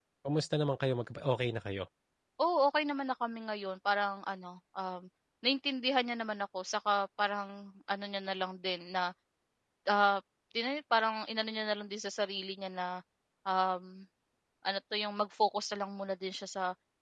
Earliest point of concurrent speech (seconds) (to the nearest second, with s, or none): none